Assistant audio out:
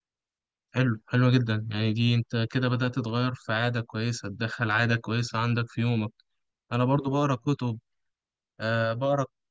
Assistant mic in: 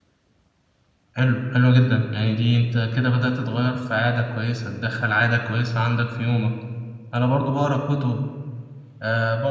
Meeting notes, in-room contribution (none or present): none